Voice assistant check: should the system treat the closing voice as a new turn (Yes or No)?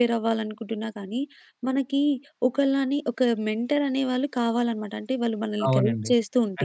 Yes